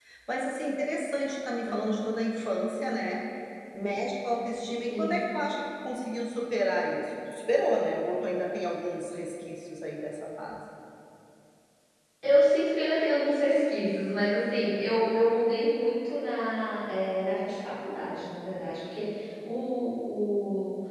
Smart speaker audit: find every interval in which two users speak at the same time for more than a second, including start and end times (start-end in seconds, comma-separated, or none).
none